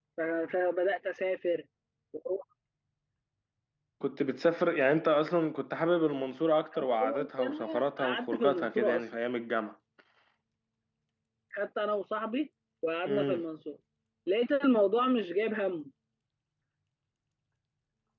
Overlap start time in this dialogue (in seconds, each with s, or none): 6.8 s